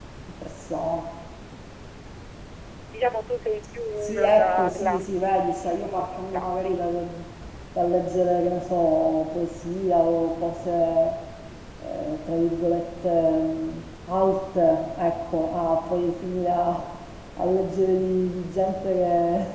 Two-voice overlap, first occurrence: 4.0 s

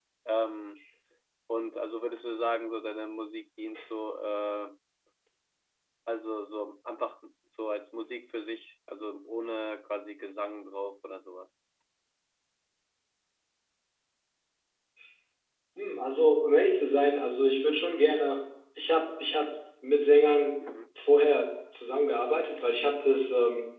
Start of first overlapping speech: none

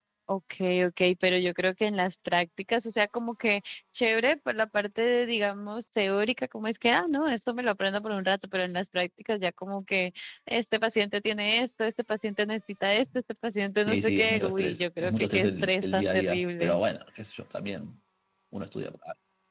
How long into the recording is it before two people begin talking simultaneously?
13.9 s

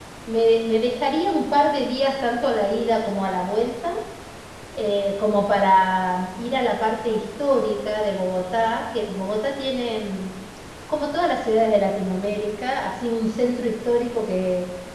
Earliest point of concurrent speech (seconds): none

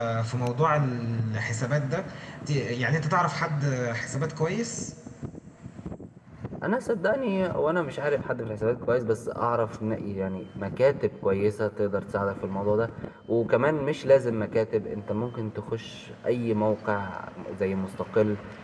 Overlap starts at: none

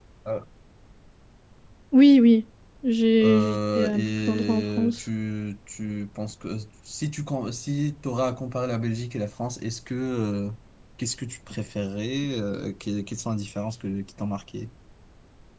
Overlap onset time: 3.2 s

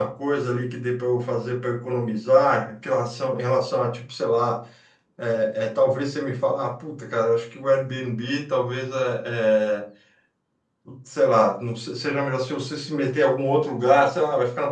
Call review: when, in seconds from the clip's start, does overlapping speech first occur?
none

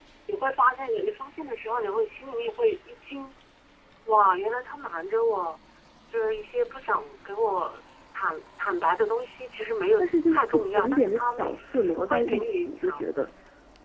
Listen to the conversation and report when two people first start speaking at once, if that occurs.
10.0 s

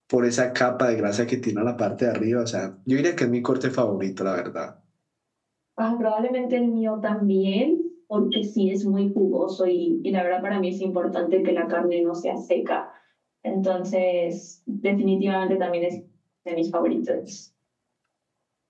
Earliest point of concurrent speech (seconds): none

